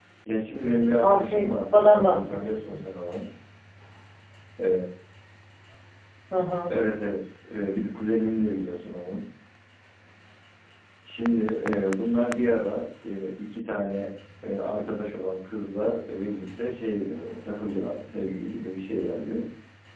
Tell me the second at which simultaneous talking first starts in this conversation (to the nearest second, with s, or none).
1 s